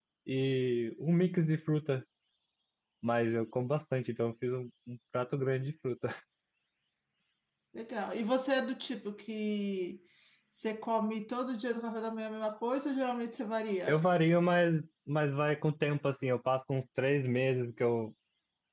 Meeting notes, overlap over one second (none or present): none